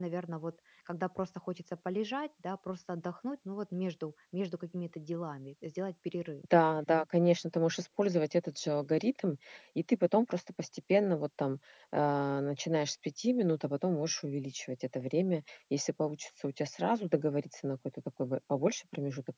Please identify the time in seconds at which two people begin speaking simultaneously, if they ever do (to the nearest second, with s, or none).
none